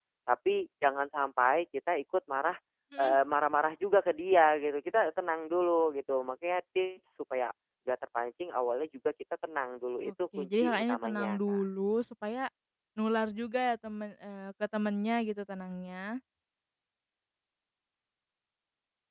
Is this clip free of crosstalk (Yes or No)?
No